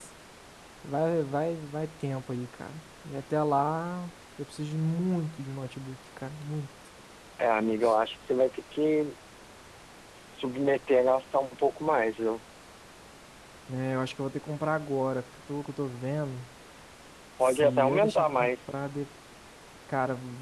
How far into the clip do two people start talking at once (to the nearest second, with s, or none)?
17 s